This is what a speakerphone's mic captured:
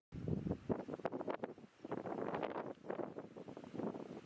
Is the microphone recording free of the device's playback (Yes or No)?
Yes